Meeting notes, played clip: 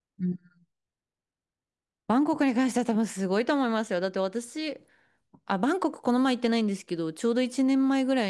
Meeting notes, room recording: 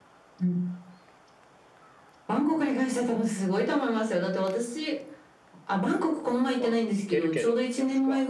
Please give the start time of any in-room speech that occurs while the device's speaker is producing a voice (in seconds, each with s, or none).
6.6 s